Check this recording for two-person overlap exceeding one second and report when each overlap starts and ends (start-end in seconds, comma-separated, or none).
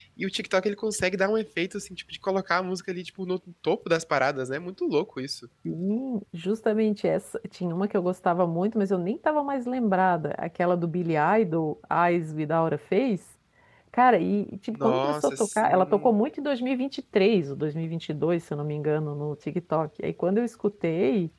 14.7-16.1